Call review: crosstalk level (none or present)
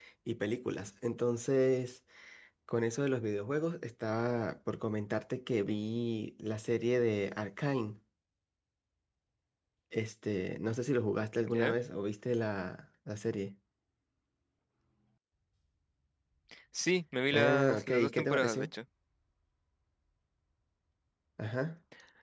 present